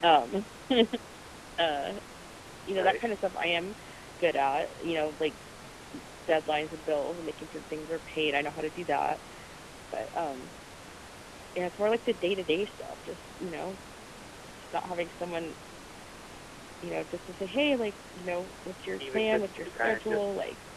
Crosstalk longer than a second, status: present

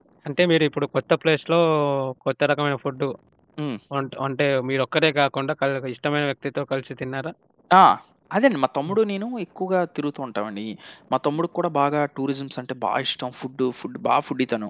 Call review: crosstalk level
none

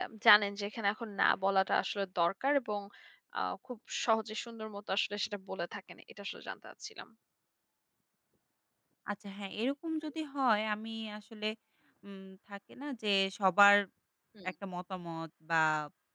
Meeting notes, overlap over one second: none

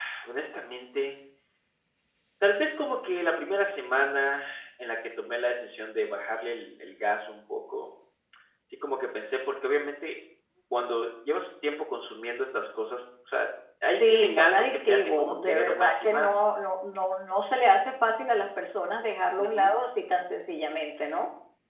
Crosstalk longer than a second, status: present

